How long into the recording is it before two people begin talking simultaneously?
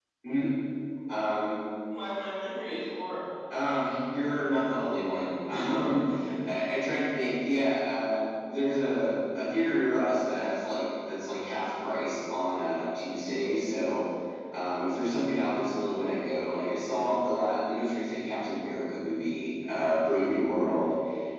none

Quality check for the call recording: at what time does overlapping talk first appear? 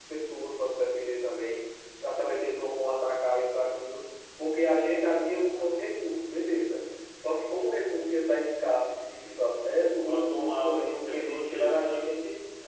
10.1 s

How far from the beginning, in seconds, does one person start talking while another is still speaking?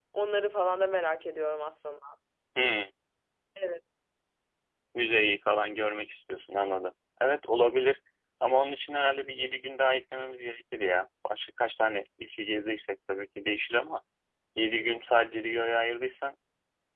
none

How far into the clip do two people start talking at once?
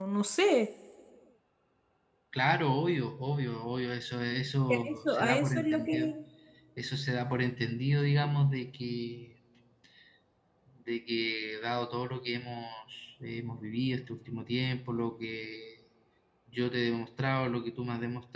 4.7 s

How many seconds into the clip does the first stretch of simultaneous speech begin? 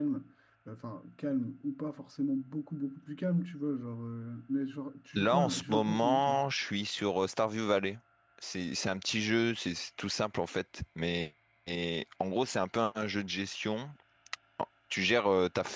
5.2 s

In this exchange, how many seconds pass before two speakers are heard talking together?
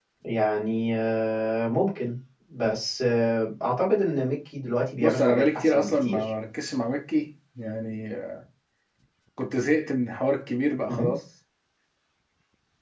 5.0 s

